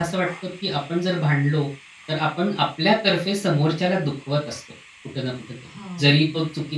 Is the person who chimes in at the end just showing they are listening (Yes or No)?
Yes